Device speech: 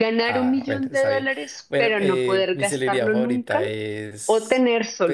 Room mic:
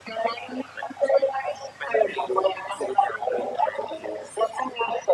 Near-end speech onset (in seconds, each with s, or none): none